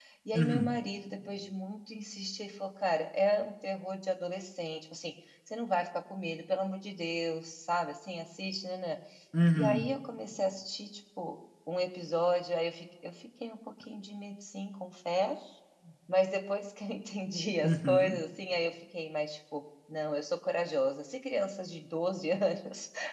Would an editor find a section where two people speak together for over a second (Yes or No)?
No